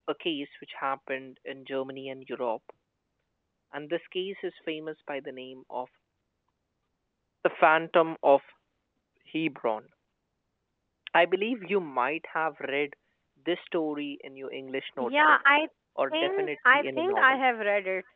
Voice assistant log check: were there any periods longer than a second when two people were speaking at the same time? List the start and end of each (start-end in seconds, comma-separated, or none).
16.1-17.4